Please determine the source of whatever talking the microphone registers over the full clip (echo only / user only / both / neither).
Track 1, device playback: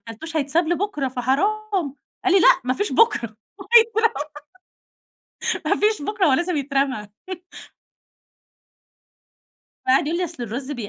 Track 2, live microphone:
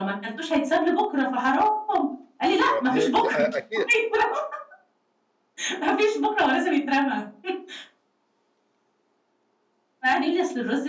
both